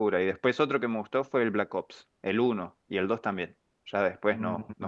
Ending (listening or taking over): taking over